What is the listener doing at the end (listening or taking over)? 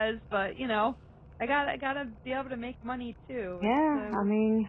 taking over